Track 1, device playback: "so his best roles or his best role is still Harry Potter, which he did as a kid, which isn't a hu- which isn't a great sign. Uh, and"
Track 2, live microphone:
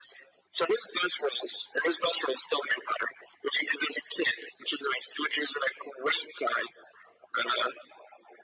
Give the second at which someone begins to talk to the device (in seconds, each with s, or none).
none